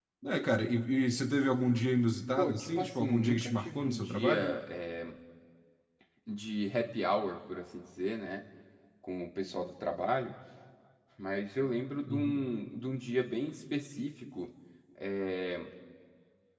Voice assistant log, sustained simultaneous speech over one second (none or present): present